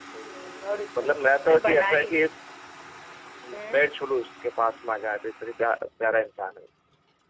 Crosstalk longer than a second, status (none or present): present